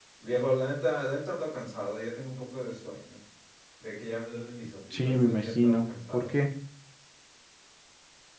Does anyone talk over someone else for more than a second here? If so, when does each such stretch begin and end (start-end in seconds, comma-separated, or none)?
5.0-6.3